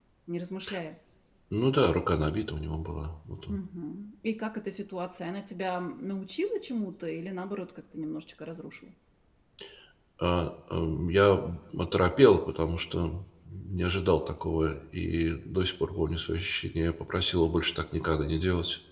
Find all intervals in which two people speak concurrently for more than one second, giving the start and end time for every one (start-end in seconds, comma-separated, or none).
none